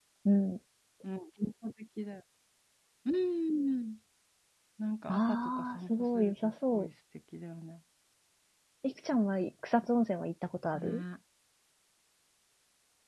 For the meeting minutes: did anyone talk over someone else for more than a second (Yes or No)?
Yes